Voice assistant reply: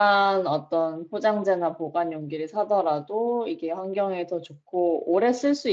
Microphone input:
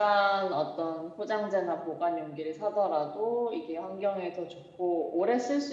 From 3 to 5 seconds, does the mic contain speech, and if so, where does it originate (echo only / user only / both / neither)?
echo only